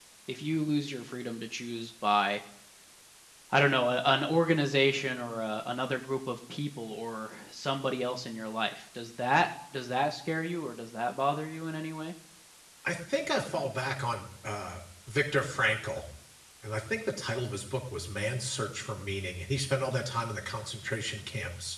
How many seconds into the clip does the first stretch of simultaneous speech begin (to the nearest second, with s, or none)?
none